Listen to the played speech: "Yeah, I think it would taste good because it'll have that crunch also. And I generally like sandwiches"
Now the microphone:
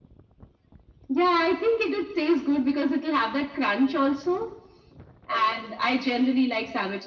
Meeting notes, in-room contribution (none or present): none